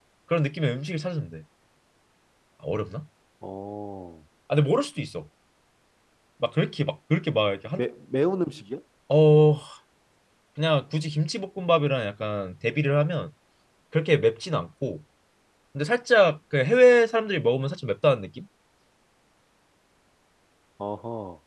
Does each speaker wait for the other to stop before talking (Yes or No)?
Yes